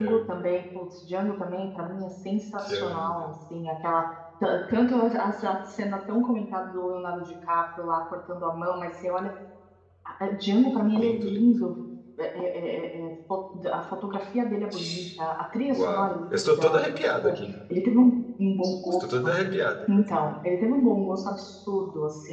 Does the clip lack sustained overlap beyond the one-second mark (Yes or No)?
No